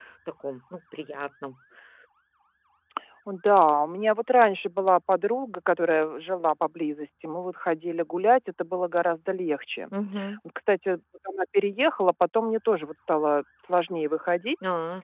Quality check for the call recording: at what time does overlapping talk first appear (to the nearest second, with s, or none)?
none